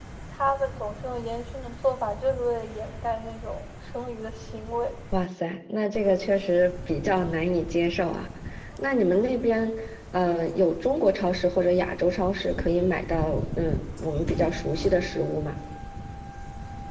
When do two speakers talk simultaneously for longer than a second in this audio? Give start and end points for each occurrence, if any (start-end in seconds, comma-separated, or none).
none